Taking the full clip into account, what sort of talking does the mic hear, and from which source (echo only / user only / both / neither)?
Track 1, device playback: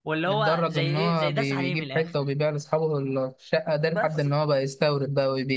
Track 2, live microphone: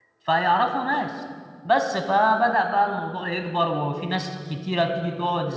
user only